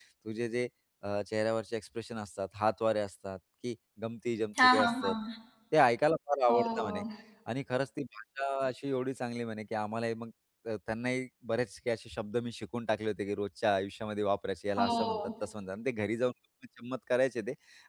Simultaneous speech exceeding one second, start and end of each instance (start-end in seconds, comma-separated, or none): none